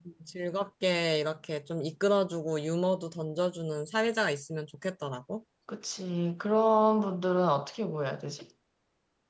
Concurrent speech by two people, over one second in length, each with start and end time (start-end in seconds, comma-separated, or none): none